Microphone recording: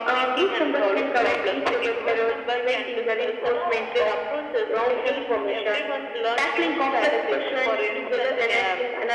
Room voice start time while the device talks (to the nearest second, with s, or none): none